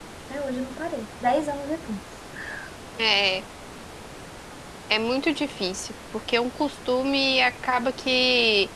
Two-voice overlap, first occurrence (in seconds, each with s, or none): none